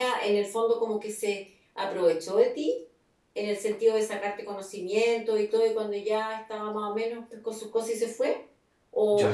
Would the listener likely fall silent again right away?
No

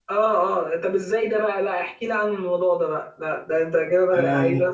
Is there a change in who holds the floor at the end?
Yes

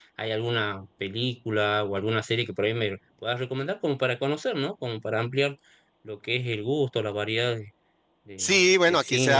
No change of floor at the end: No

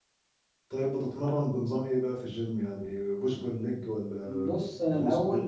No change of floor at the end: No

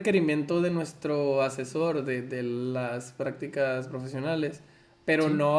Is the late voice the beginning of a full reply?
No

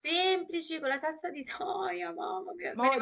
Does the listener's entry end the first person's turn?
Yes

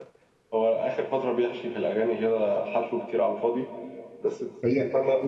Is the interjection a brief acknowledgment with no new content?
No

